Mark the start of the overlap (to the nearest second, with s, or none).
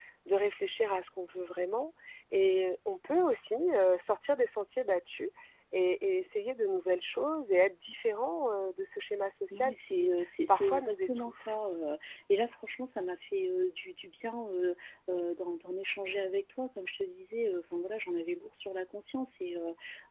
10 s